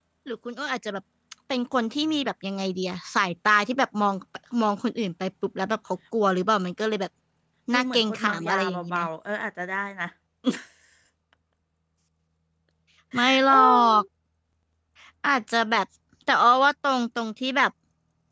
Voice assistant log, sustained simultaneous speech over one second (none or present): present